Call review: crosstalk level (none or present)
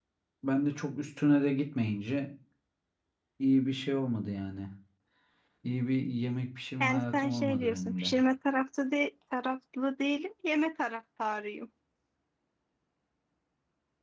present